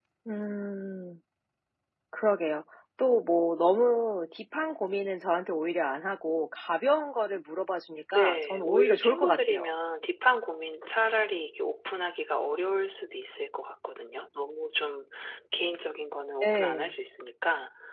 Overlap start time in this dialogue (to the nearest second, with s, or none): 8 s